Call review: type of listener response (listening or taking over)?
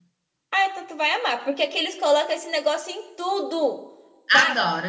taking over